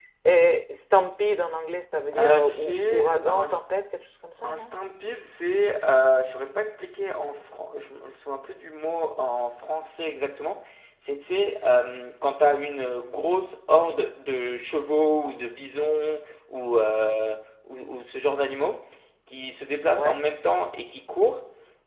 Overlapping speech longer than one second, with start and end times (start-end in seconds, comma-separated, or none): 2.2-3.4